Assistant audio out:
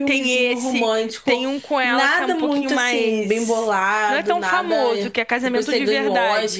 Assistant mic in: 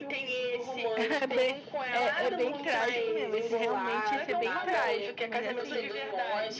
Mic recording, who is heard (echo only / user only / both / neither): both